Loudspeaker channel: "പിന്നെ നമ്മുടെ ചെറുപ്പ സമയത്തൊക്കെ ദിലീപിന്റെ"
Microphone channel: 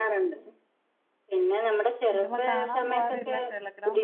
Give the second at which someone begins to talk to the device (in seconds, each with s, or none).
2.1 s